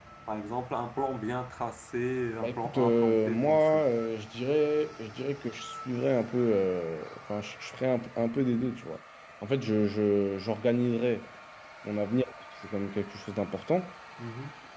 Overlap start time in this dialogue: 2.4 s

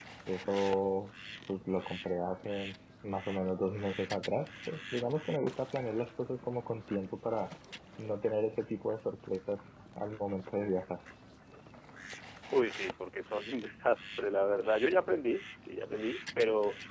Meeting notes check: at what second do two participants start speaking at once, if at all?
none

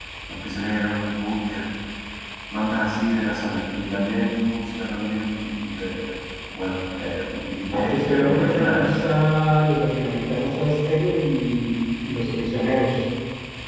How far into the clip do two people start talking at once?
7.7 s

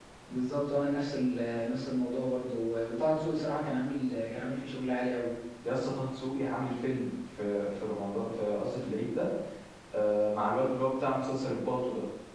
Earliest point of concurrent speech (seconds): none

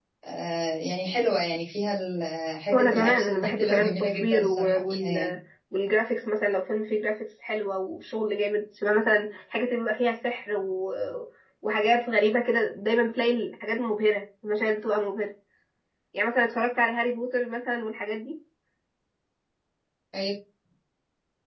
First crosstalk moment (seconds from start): 2.7 s

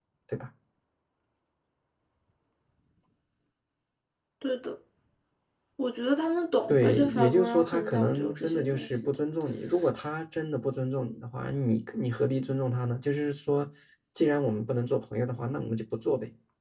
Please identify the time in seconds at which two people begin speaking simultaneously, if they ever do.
6.7 s

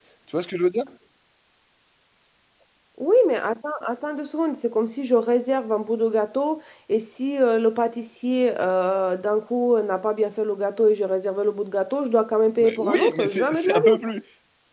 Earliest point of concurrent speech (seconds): 12.6 s

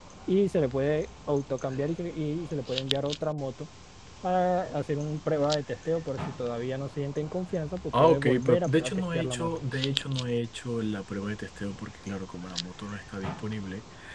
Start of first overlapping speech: 7.9 s

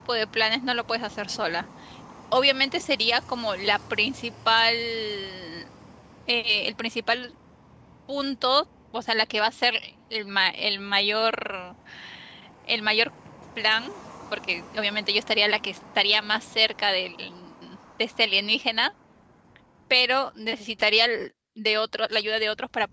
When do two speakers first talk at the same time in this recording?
none

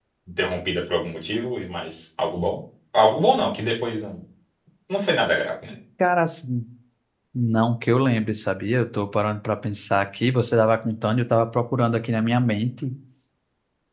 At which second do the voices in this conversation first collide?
none

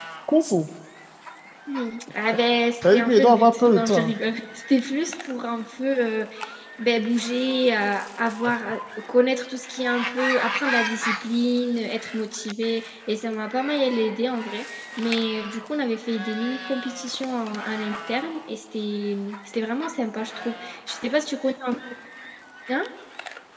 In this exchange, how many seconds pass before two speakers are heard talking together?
2.8 s

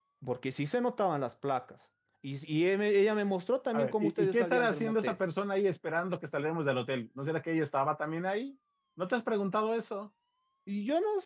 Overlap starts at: 3.7 s

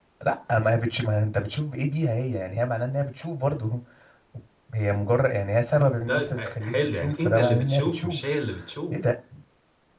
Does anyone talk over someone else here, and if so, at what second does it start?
6.1 s

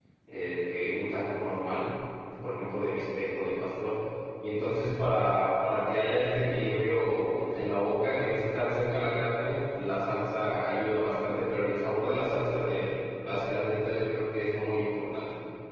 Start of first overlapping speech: none

